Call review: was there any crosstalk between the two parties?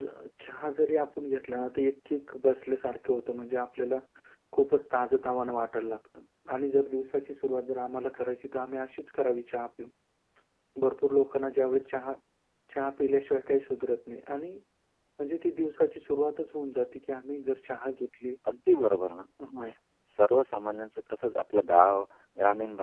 No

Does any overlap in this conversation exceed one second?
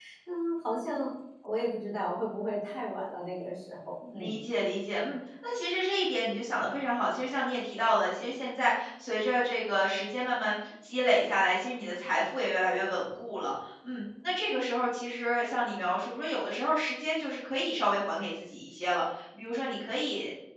No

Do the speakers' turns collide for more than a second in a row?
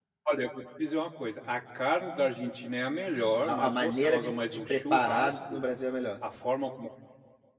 Yes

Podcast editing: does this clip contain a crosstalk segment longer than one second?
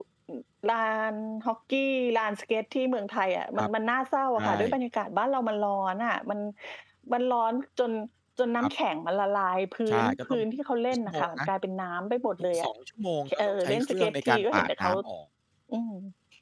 Yes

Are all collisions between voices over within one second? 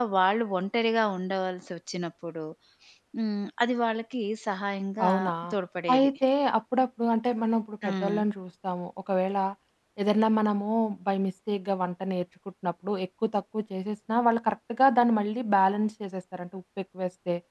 Yes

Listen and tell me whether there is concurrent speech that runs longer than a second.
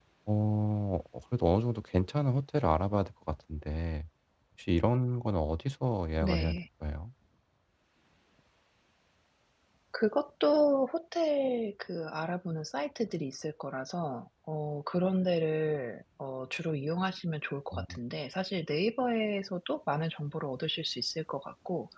No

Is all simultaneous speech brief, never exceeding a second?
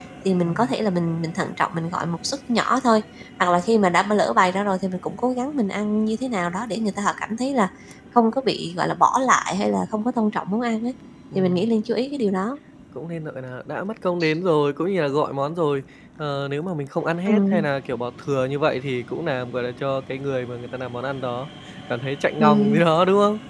Yes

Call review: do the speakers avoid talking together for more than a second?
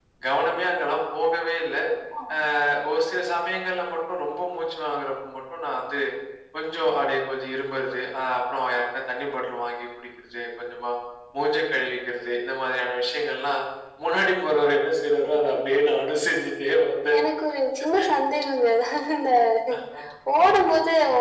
Yes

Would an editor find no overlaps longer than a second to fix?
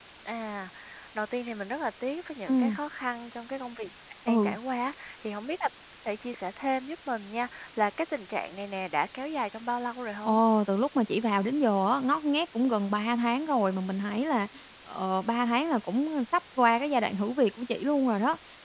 Yes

